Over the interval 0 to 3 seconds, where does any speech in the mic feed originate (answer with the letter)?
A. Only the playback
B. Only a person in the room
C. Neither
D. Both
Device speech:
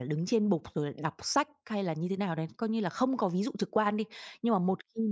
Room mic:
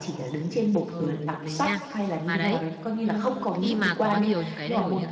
D